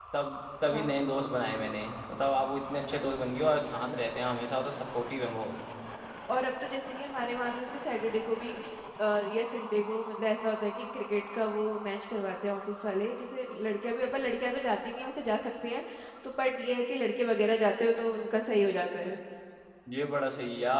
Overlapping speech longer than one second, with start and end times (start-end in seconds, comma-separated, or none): none